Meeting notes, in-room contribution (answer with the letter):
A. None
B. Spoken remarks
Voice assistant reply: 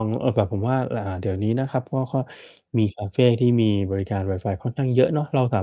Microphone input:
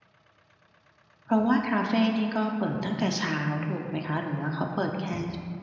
B